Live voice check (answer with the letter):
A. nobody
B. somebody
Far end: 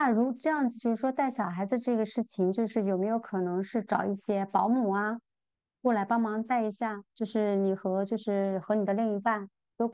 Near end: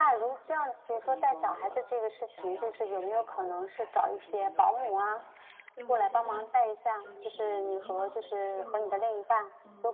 B